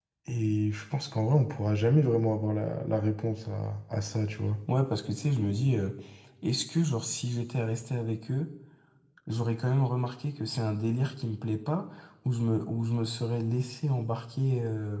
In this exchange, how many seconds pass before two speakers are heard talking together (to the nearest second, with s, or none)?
none